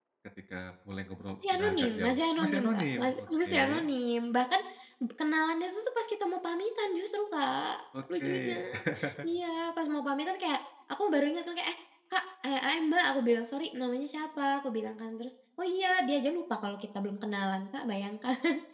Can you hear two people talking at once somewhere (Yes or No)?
Yes